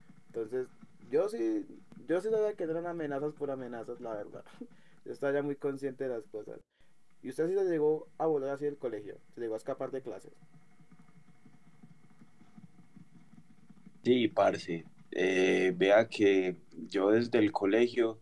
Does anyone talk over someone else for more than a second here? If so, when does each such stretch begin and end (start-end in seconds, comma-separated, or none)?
none